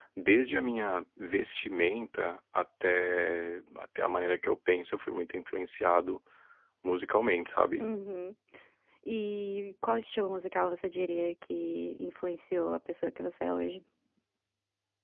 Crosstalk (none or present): none